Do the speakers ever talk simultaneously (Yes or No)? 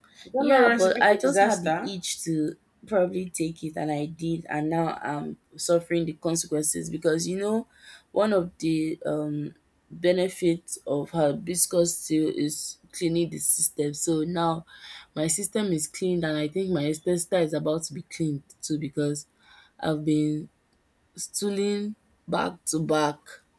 Yes